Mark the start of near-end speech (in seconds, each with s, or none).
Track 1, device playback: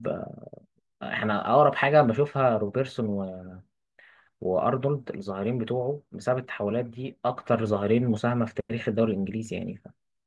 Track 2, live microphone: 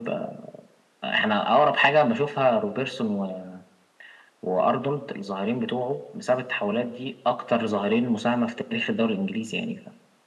none